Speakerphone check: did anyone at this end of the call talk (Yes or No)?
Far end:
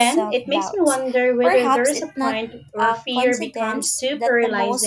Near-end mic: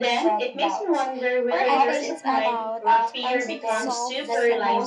Yes